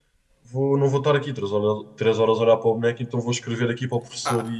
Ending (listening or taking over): taking over